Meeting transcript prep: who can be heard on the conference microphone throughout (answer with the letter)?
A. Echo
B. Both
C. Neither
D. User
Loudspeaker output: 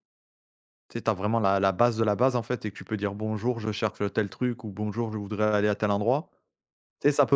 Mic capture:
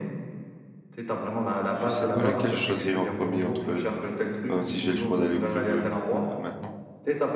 B